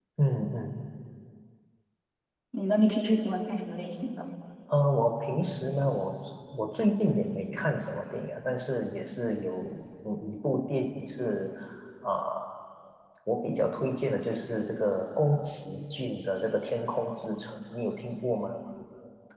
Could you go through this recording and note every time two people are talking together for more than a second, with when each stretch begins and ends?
none

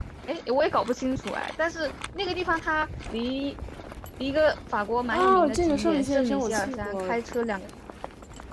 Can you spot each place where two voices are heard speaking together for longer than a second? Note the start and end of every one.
5.1-7.2

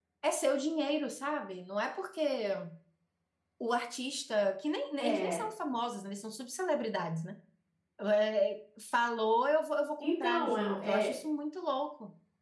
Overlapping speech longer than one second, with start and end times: 10.0-11.2

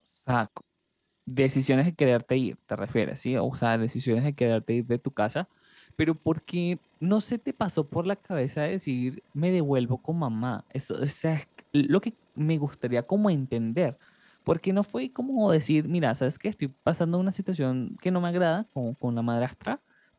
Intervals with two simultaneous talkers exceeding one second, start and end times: none

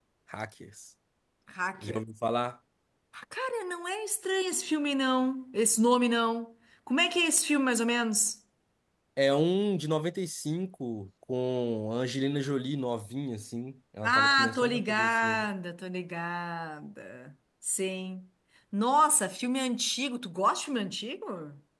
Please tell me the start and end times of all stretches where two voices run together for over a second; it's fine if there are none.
14.0-15.4

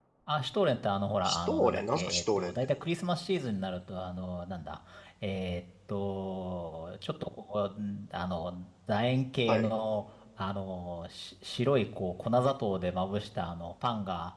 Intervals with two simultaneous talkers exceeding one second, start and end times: 1.2-2.5

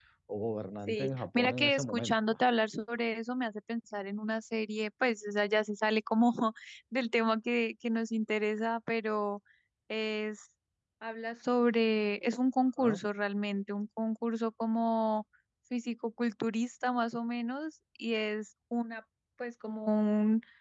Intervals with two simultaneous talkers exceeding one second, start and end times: 0.9-2.1

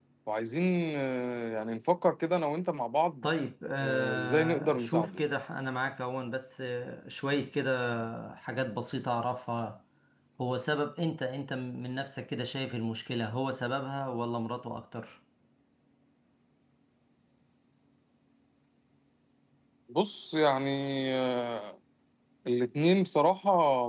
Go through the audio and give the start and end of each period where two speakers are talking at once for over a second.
3.8-5.2

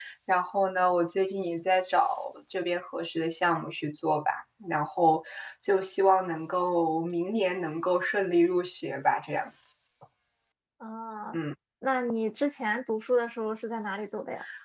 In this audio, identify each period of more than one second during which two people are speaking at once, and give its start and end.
none

